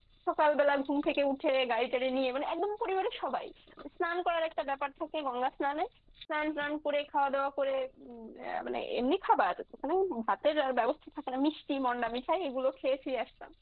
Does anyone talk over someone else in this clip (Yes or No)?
No